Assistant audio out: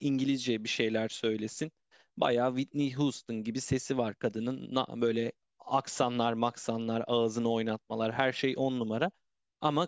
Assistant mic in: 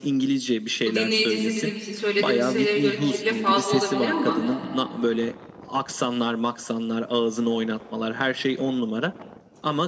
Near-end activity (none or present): present